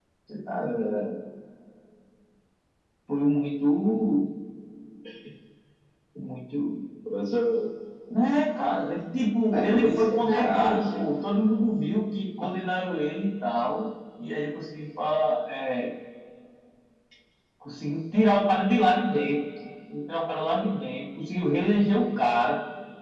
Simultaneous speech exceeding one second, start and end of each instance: 9.5-11.1

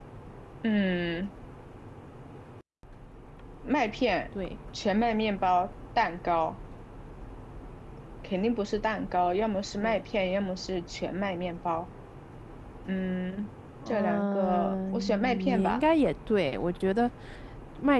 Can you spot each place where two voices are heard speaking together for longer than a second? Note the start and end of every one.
13.9-15.8

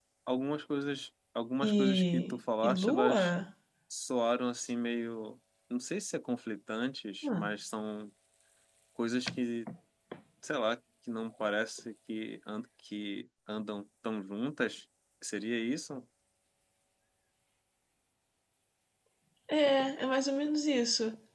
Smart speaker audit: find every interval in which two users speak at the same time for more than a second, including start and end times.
1.6-3.2

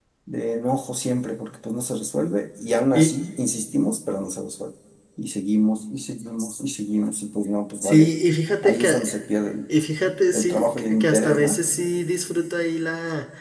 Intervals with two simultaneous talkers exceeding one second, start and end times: 10.3-11.6

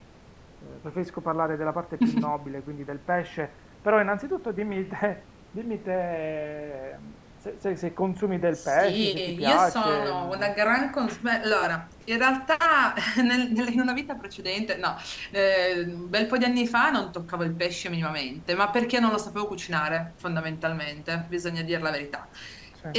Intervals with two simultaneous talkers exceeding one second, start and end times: 8.6-10.5

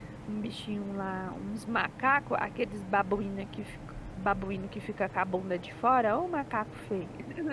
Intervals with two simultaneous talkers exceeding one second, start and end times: none

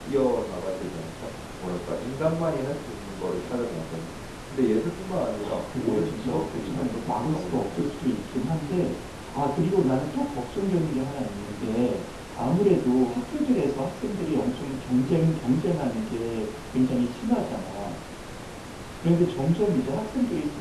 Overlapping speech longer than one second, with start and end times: 5.4-7.8

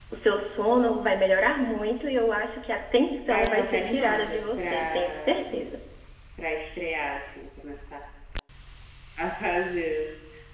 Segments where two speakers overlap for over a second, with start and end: 3.3-5.4

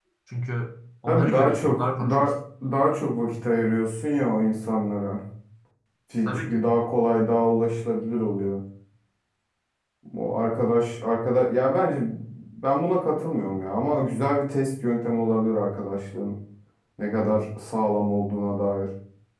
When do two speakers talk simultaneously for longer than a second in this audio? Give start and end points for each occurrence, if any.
1.1-2.3

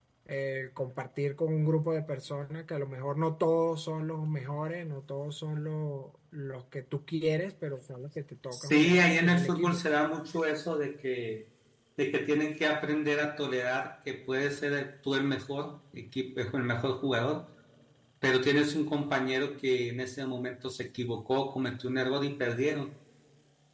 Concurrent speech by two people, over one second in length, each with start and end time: 8.5-9.8

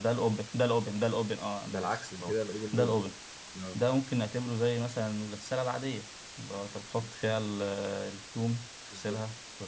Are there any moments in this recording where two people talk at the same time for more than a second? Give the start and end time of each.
1.7-3.0

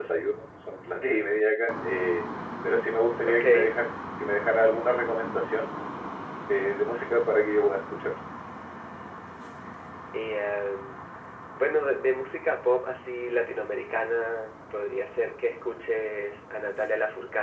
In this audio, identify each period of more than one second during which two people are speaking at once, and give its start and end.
none

